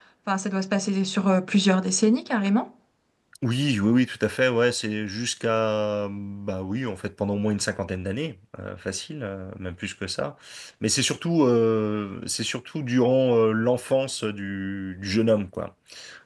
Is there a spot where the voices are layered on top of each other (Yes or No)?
No